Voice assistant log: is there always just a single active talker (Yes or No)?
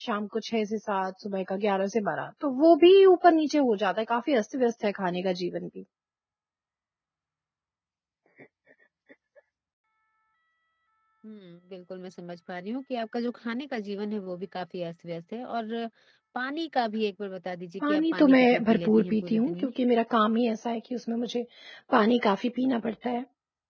No